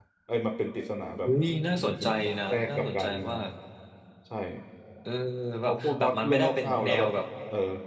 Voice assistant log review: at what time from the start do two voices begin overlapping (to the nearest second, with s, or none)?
2 s